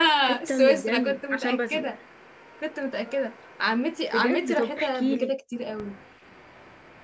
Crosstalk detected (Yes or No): Yes